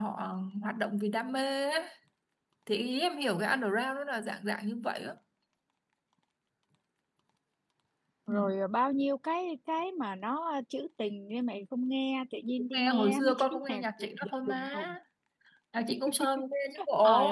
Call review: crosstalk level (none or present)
present